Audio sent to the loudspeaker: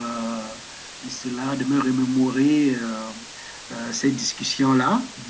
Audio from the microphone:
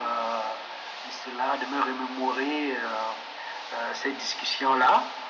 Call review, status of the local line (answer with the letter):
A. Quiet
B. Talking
A